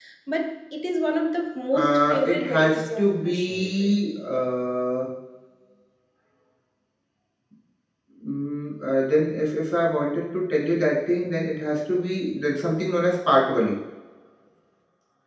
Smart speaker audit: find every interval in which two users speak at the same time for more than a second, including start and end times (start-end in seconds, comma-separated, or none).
1.7-3.9